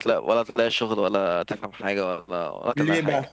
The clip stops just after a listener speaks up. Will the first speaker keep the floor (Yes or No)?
Yes